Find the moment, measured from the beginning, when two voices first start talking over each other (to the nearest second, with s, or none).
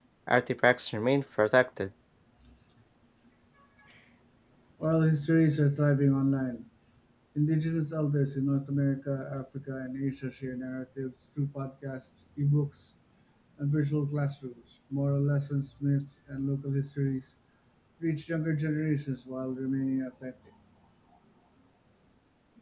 none